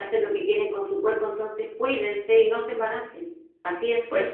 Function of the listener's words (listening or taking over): taking over